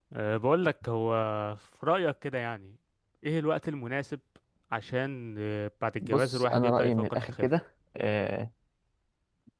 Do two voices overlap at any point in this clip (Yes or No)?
Yes